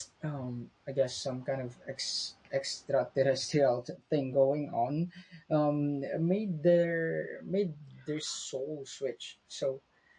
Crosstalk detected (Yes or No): No